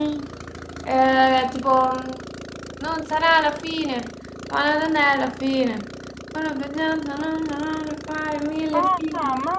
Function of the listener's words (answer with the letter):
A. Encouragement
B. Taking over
B